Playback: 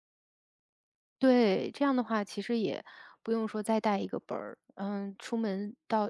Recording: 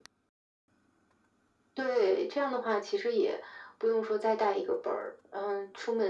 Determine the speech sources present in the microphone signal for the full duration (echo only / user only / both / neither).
echo only